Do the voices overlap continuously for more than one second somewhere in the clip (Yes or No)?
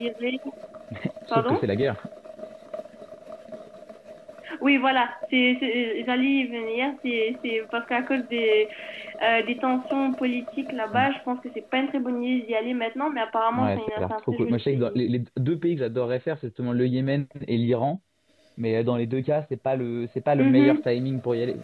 Yes